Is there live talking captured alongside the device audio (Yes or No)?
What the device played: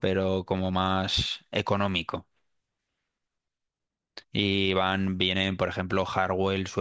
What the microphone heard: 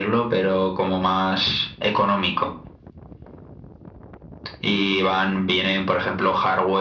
No